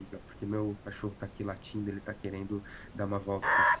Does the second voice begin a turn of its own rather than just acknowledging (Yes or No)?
Yes